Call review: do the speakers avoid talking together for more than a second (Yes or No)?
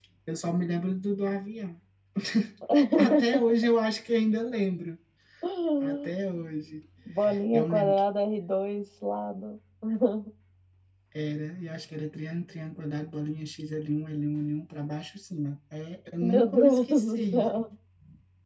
No